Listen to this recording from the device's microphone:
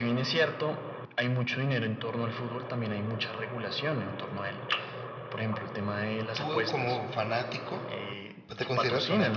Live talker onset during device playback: 6 s

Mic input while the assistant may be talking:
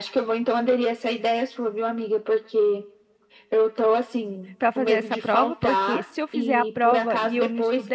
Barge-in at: 5 s

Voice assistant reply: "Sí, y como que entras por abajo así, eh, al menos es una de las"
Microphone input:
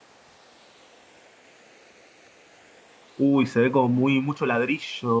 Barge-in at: 3 s

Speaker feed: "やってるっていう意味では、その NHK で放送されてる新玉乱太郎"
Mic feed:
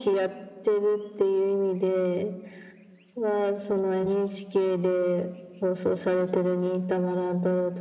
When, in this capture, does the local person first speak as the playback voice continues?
none

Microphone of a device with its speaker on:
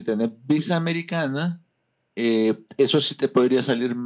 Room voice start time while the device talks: none

